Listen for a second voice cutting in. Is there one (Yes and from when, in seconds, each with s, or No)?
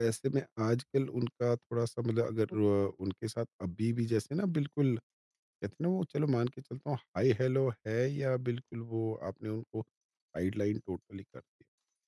No